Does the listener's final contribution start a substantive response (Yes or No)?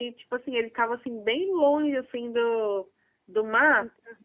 No